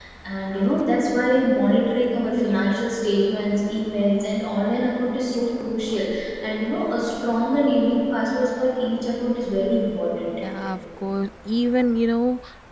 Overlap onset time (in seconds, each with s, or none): none